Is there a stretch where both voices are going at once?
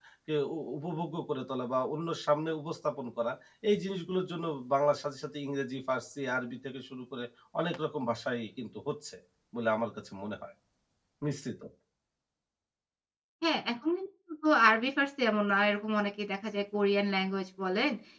No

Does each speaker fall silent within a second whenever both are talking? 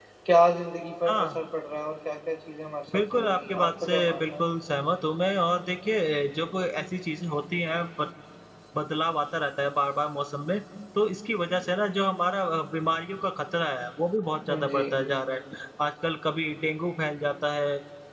No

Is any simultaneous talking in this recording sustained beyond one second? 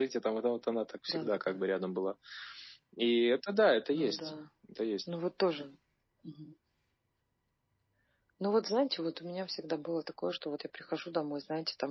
No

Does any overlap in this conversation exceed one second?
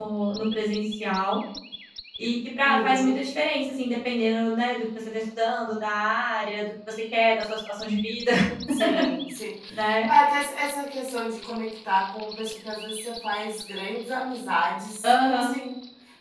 No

